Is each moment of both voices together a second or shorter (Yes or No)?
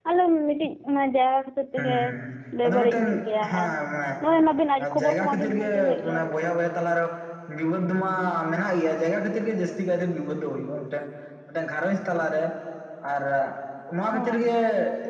No